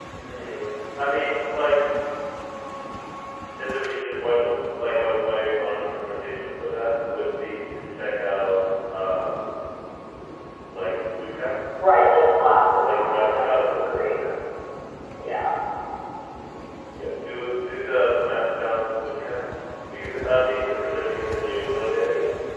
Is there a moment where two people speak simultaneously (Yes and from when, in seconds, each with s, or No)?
Yes, from 12.8 s